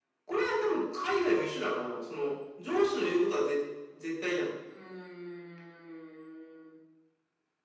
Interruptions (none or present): none